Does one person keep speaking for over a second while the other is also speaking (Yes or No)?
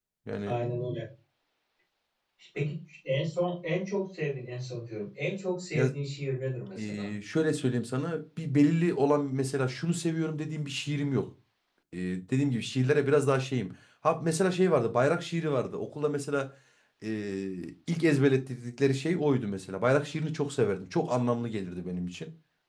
No